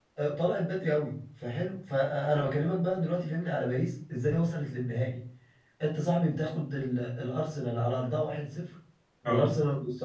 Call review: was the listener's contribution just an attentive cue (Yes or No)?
Yes